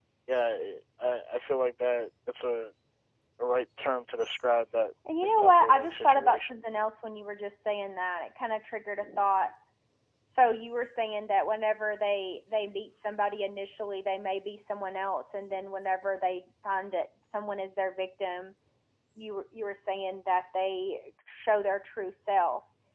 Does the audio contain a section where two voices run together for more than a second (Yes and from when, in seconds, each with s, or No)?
Yes, from 5.1 s